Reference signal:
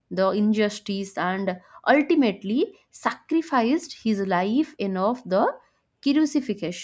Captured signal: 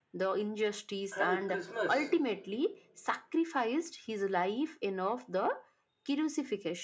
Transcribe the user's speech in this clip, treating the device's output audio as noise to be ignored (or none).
and christmas